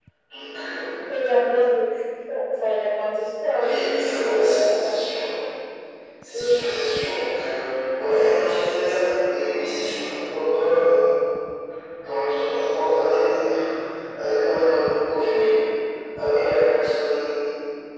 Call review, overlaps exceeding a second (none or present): present